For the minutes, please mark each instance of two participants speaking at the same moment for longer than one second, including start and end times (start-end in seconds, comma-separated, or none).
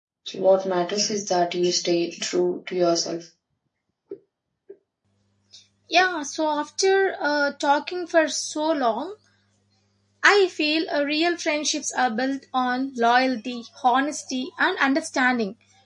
none